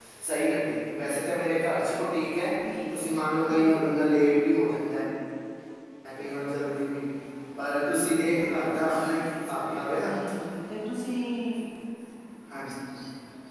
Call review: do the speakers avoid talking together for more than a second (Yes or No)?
Yes